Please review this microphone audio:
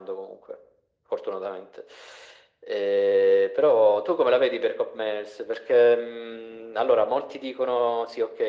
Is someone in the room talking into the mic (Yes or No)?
No